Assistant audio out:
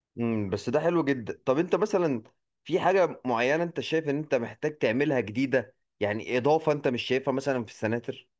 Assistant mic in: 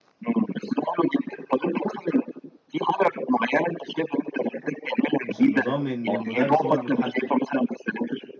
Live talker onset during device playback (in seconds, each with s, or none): 5.2 s